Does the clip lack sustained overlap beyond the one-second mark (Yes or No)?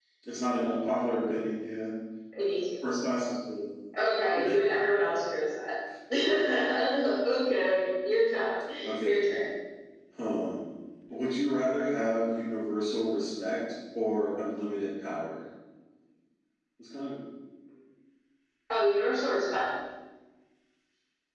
Yes